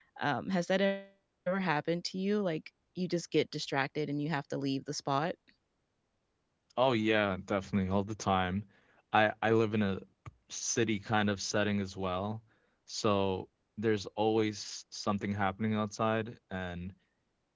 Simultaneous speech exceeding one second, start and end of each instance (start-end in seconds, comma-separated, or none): none